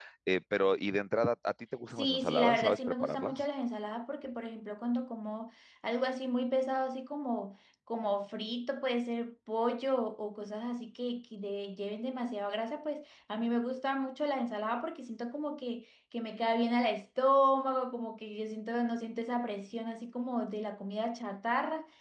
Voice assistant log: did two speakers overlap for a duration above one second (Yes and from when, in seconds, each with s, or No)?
Yes, from 1.9 s